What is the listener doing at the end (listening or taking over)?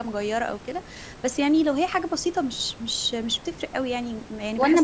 taking over